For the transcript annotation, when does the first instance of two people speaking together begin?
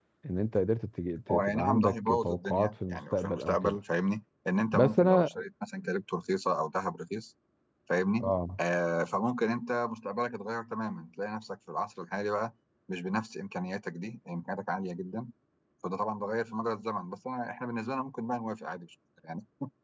1 s

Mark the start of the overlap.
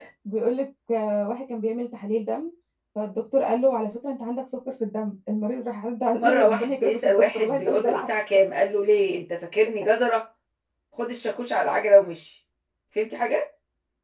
6 s

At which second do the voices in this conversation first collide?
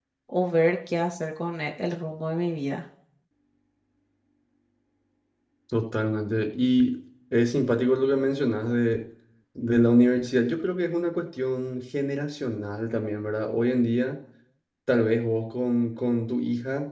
none

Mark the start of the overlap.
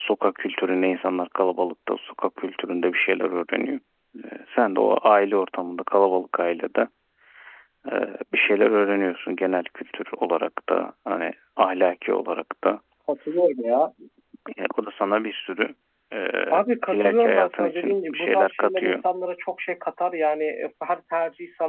17 s

